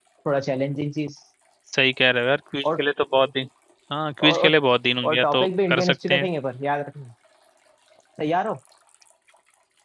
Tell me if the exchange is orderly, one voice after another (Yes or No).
No